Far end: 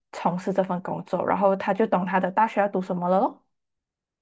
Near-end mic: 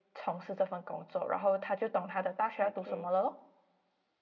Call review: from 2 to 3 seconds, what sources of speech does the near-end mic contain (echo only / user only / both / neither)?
both